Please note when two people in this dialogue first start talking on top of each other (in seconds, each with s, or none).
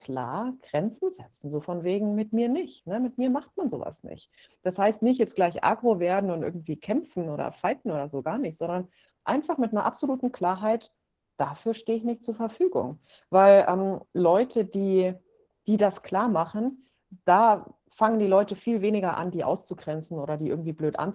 none